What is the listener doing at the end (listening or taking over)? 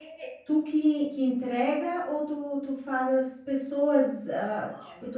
listening